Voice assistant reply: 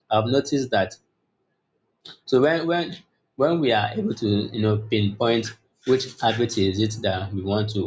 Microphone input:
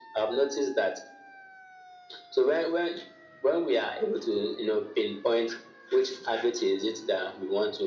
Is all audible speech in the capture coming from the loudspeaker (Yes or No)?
Yes